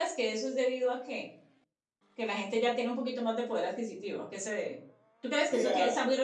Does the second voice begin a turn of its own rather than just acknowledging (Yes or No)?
No